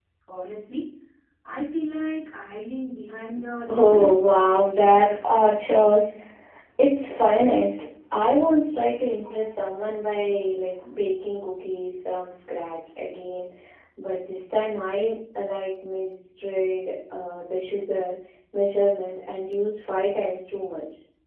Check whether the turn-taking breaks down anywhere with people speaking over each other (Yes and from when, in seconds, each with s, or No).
Yes, from 3.6 s